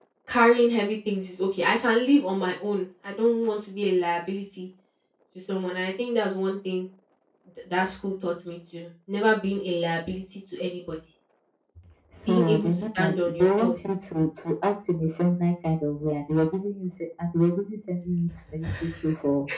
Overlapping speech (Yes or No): Yes